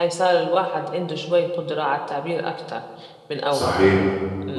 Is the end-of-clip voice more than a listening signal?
Yes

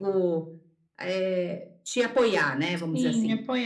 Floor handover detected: Yes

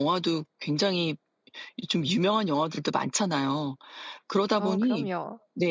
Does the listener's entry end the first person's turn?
No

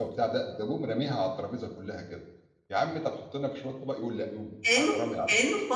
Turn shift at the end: Yes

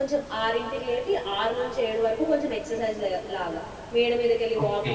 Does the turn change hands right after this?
No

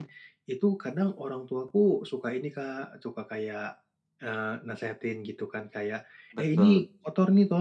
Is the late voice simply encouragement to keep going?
Yes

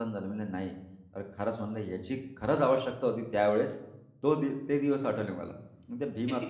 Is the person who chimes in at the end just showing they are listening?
Yes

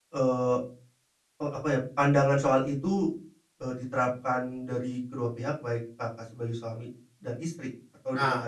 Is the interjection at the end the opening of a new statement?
Yes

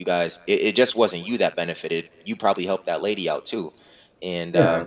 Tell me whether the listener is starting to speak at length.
No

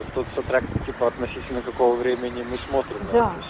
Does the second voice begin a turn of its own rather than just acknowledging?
Yes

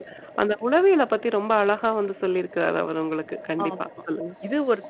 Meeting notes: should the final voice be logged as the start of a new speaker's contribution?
Yes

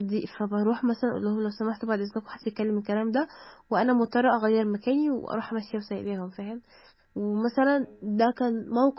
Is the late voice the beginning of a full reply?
No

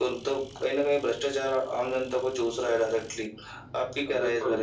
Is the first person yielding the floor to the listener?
Yes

